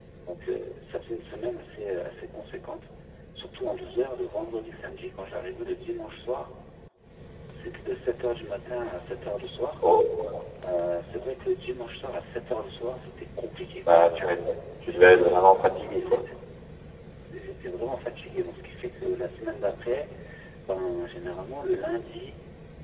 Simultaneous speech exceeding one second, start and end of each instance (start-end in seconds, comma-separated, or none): none